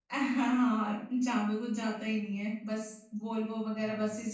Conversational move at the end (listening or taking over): listening